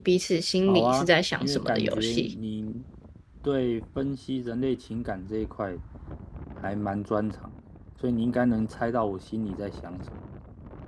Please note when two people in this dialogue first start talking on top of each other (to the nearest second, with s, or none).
1 s